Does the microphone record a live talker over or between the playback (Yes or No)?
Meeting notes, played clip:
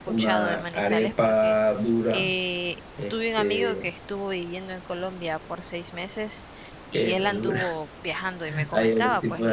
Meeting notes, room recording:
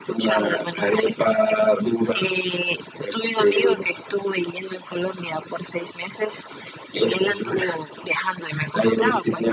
No